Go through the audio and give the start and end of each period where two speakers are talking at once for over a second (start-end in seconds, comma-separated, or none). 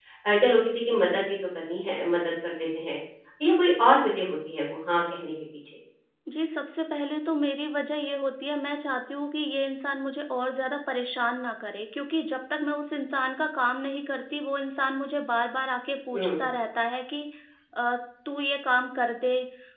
none